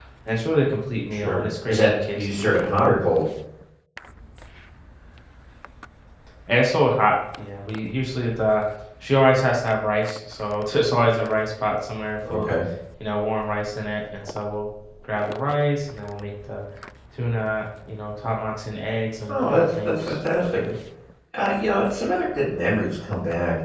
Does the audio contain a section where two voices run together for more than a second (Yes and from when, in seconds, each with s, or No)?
Yes, from 1.1 s